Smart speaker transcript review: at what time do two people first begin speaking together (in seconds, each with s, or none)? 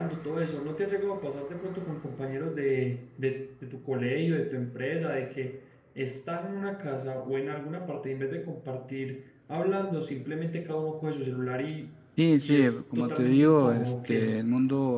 12.4 s